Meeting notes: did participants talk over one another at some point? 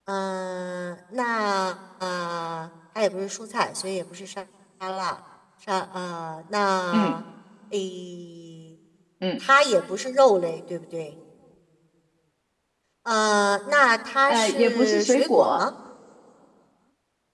Yes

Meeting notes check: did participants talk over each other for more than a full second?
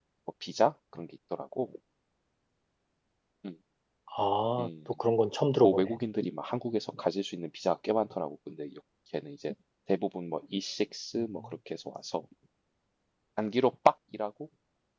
No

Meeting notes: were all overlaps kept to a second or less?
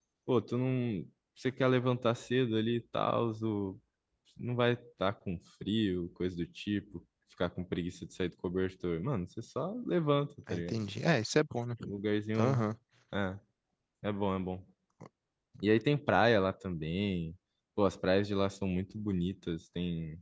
Yes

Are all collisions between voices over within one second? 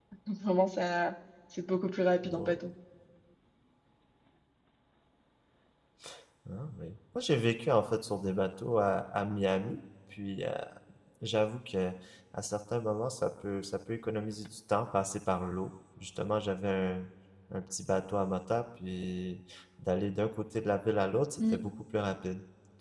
Yes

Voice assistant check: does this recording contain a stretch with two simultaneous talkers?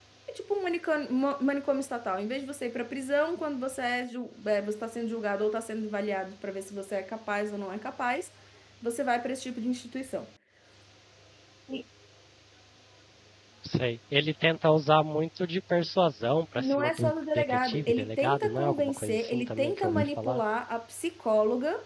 Yes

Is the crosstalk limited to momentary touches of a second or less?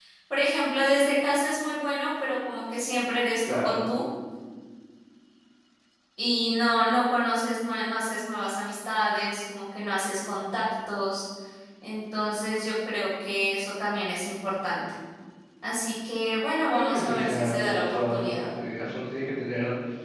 No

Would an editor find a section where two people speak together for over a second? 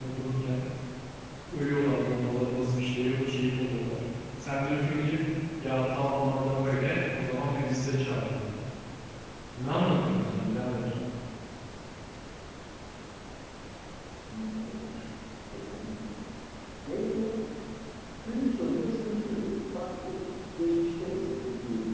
No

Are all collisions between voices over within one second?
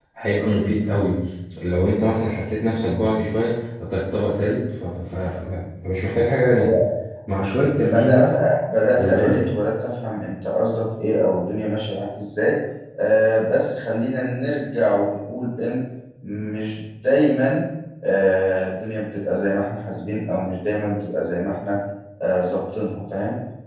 Yes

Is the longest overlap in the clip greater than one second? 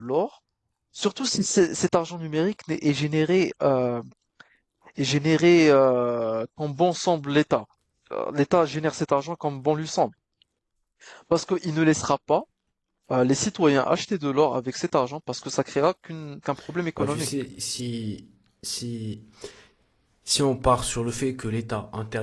No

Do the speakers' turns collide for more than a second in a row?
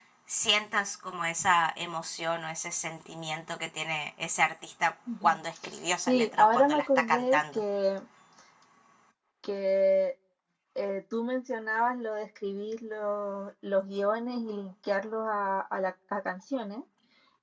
Yes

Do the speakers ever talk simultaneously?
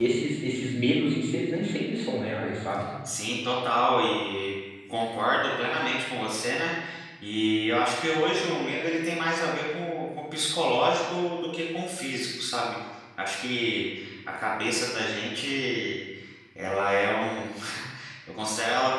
No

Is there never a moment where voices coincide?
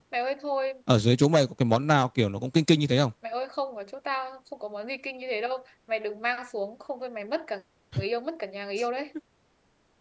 Yes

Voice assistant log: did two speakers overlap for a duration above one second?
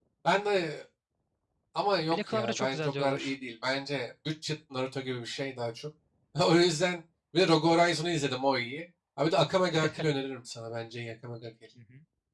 Yes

